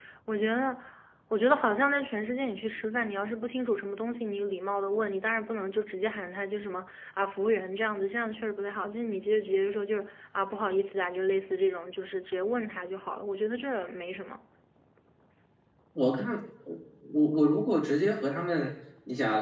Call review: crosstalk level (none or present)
none